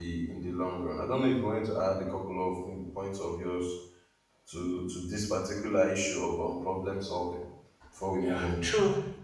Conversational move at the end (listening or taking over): taking over